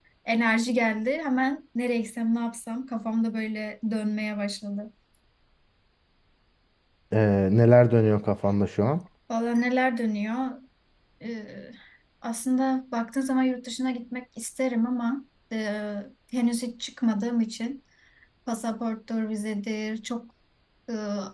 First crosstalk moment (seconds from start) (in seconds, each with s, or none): none